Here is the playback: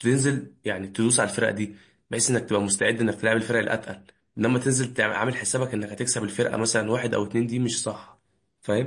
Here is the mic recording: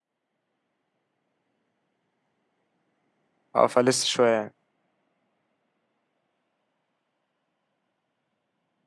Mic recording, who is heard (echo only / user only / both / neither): user only